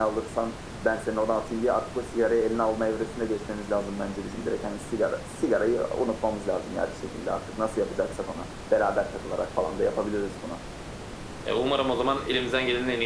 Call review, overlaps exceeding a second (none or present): none